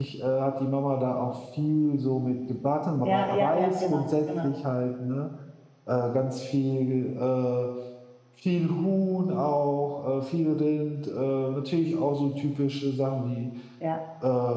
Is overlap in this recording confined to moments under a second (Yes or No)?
No